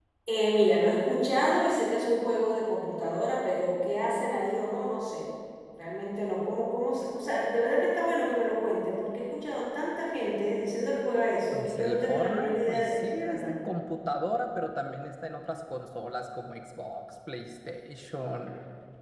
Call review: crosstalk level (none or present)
present